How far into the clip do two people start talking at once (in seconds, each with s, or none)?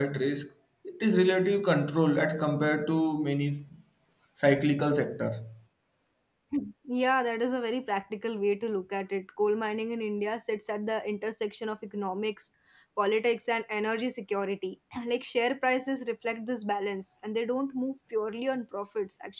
none